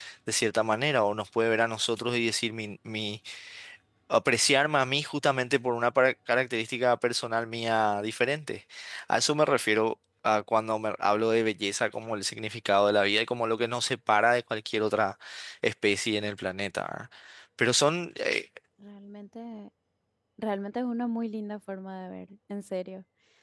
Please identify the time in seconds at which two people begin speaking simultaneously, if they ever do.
none

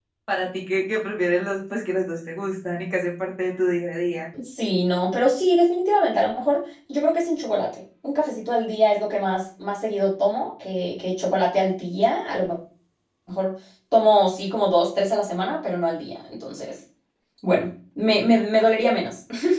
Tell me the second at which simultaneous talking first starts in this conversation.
none

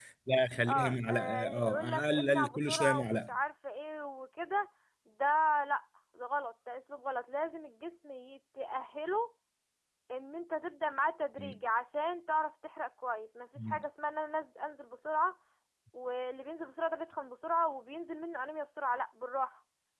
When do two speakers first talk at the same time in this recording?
0.7 s

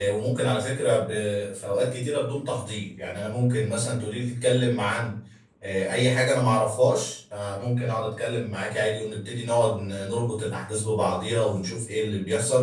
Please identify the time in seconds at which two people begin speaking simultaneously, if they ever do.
none

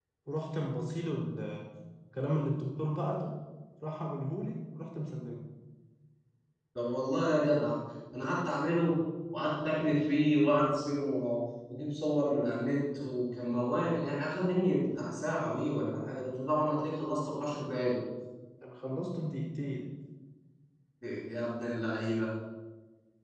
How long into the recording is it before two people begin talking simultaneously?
none

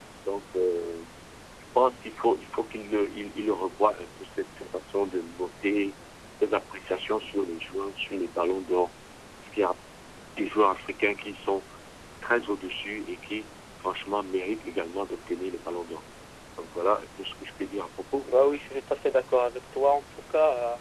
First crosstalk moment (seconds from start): none

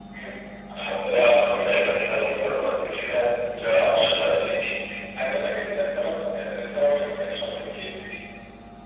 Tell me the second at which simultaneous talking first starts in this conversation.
none

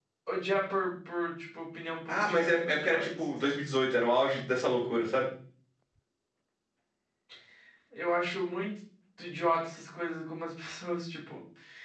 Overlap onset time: 2.1 s

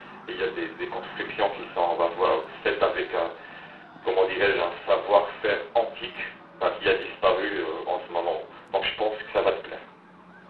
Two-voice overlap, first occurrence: none

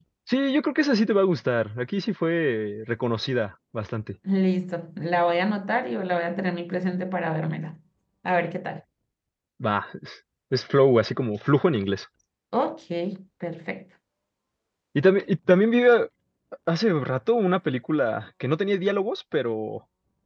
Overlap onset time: none

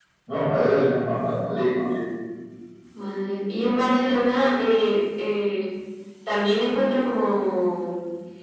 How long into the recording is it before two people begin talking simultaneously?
none

